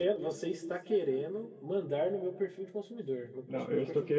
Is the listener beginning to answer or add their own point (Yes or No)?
Yes